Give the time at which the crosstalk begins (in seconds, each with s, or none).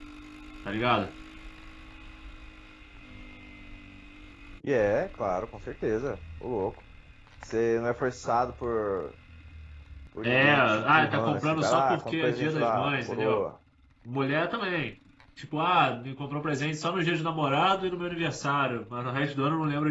10.2 s